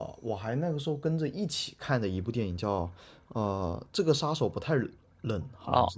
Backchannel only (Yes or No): No